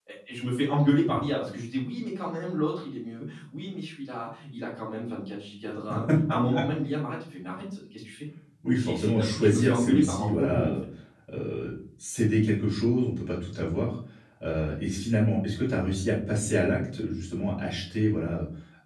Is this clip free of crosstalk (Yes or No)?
No